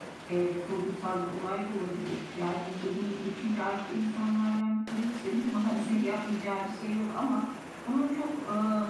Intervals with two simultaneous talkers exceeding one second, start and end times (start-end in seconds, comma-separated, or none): none